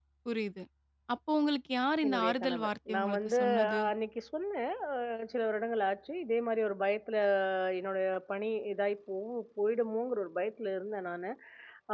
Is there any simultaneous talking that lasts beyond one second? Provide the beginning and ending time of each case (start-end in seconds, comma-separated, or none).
2.0-3.8